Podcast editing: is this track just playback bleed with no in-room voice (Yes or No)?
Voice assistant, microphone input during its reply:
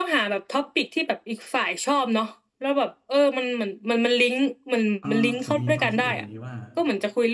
No